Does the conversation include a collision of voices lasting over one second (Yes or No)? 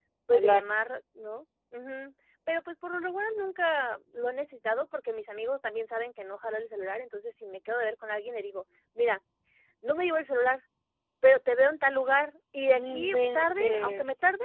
Yes